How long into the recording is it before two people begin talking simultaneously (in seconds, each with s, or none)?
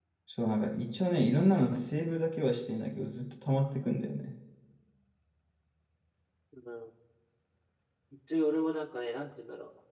none